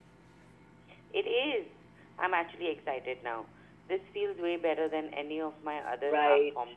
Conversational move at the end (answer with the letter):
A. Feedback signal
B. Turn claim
B